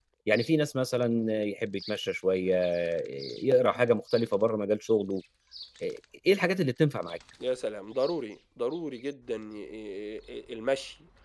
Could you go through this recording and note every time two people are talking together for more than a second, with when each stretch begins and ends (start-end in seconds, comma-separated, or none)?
none